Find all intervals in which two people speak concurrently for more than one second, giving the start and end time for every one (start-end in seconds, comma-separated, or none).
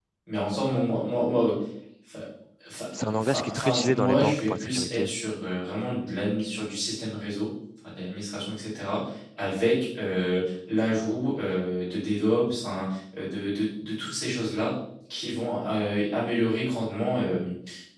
3.0-5.1